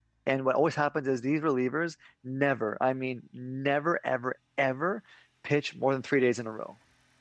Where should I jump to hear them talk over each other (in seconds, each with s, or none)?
none